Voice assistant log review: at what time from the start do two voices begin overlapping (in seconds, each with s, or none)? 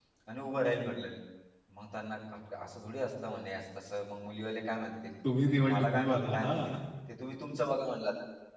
5.2 s